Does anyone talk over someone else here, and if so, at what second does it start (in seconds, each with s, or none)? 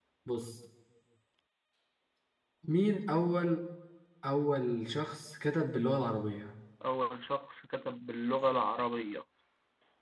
none